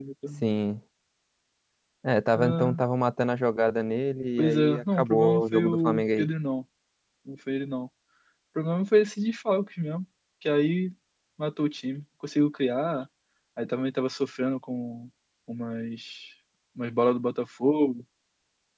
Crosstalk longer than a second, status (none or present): present